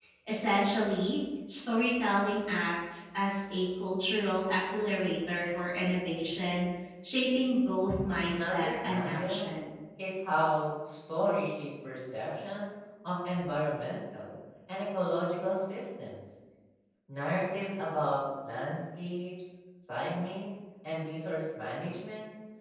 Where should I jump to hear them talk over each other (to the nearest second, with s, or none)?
8 s